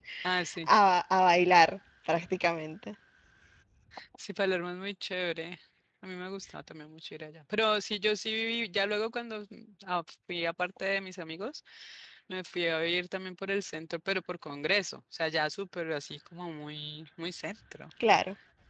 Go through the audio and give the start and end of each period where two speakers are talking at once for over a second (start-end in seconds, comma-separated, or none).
none